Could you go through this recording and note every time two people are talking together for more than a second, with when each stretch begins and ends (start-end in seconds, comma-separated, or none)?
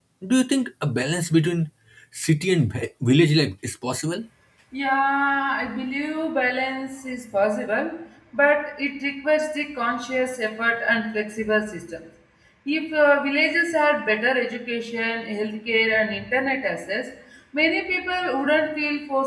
none